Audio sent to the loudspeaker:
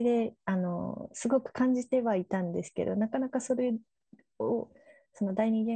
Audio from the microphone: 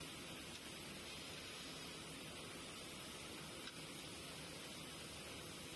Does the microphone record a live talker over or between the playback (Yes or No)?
No